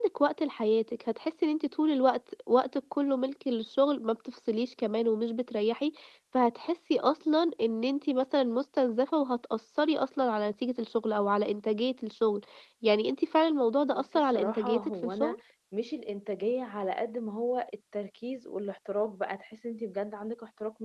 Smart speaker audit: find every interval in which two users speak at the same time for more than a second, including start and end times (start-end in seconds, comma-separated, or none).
13.9-15.4